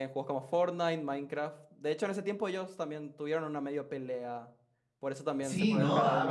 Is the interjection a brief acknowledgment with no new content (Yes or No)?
No